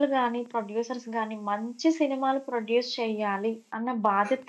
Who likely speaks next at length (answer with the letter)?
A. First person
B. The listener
A